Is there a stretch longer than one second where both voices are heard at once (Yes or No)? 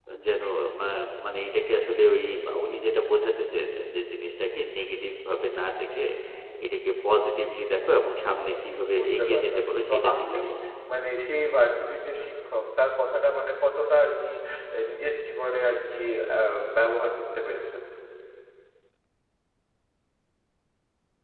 Yes